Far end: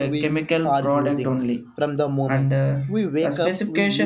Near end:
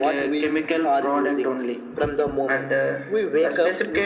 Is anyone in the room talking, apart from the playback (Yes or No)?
No